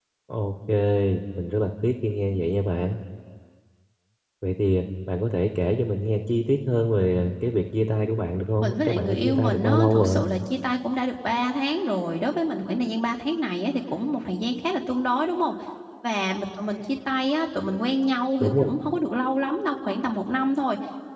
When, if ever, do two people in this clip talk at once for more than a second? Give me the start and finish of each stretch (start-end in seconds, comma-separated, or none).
8.6-10.2